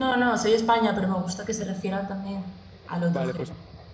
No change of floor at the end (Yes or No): No